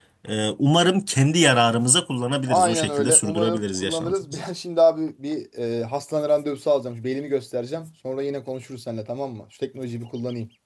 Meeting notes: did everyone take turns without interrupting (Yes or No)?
No